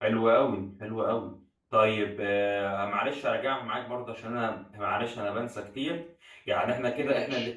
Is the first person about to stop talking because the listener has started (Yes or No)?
No